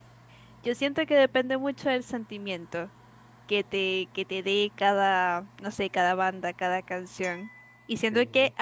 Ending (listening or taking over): listening